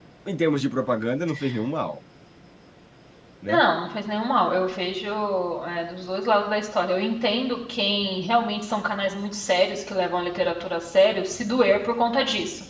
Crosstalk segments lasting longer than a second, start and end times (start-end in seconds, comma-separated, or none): none